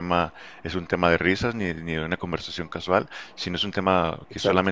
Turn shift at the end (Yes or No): No